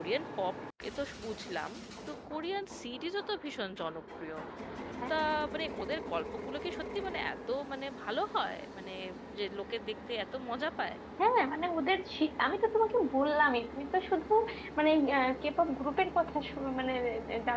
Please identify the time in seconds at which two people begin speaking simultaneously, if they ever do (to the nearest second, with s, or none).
none